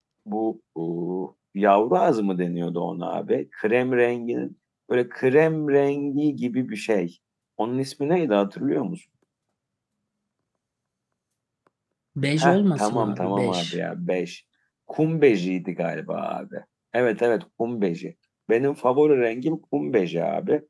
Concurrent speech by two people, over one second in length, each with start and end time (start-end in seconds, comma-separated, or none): 12.4-13.8